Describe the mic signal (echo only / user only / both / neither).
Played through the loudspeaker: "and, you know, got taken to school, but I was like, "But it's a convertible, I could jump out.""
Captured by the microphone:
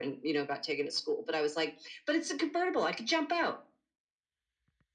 echo only